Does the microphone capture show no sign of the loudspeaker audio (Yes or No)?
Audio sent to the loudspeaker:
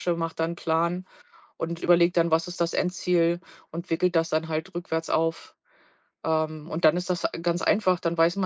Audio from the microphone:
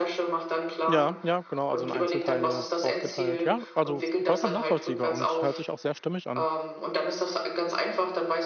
No